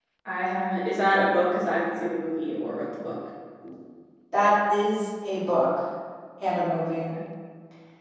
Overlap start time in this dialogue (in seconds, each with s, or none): none